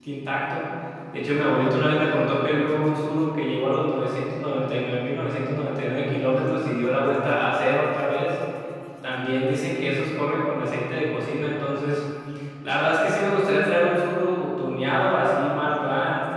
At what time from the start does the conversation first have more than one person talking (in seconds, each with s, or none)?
none